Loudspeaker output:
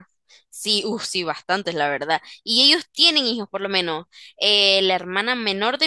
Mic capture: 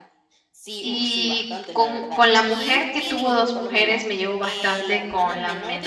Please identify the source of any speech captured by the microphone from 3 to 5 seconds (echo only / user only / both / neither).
both